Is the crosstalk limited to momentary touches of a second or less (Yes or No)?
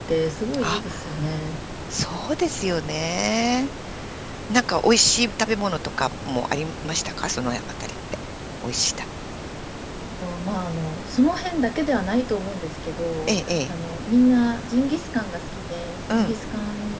Yes